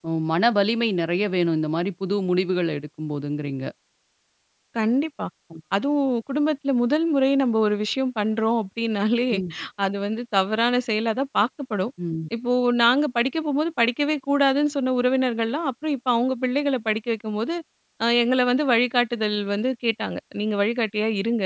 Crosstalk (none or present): none